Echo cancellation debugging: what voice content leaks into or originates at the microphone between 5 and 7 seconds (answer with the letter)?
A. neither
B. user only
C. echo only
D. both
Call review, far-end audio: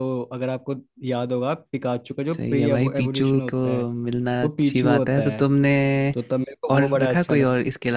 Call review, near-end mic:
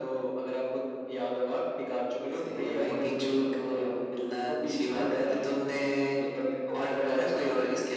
C